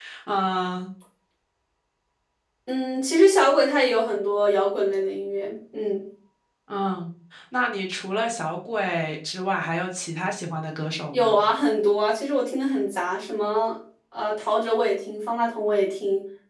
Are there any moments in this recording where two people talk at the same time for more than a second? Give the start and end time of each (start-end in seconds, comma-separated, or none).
none